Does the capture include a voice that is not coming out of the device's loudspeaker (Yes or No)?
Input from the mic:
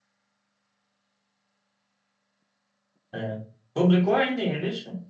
Yes